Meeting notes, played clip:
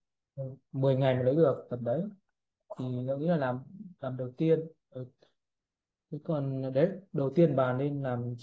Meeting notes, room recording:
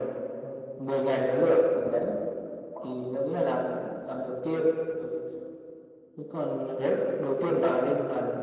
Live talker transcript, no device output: none

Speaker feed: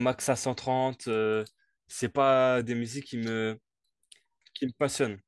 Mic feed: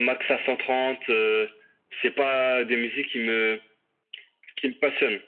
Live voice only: none

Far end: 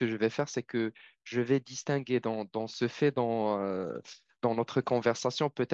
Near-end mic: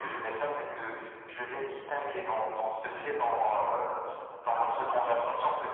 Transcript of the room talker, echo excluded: Ah.

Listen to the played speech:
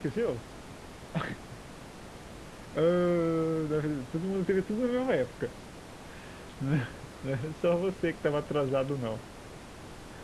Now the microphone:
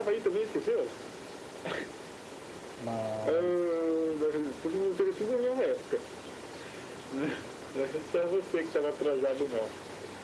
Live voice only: Mas.

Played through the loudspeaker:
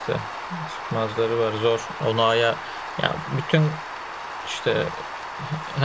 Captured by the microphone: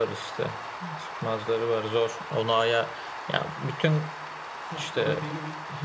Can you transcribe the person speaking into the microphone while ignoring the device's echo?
Haftada bir gün

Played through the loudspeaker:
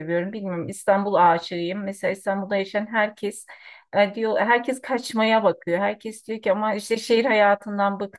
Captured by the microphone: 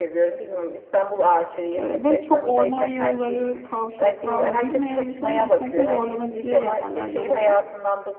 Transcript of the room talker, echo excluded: Ee, ve çok orman yolları, kavşaklar hani bilmeyen insanın gitmekte zorlanabileceği yerler yol olarak.

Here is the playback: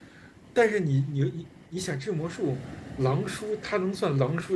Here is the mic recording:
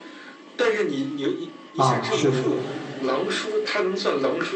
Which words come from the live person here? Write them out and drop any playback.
啊，是的，

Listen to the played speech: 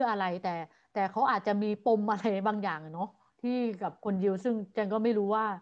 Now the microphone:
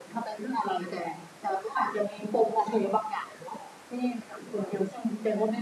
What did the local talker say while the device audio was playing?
none

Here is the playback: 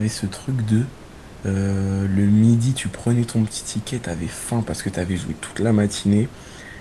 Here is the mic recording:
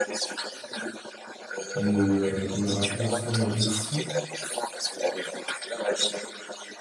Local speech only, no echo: de me, euh, de me rappeler un souvenir de fou.

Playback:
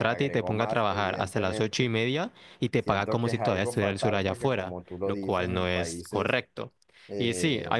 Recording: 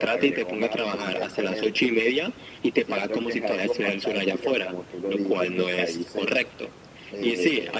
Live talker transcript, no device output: none

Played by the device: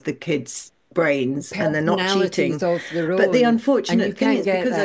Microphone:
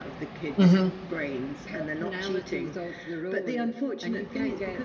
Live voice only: hmm

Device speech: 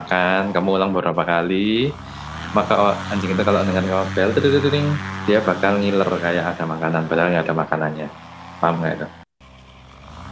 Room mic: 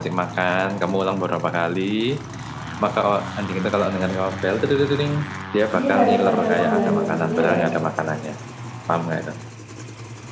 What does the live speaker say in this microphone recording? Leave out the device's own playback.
dia harus ada penggantinya ya,

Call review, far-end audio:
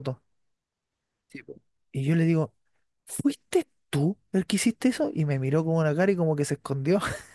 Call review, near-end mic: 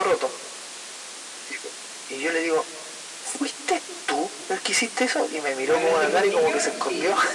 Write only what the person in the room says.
¿Más grande que un niño? Sí.

